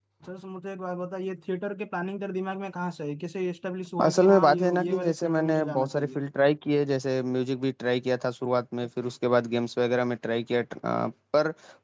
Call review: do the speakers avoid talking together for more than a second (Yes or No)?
No